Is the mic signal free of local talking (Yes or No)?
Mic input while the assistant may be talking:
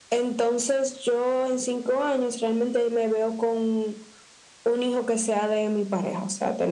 Yes